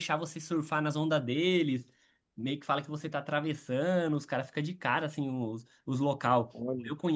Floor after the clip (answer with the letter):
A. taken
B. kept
B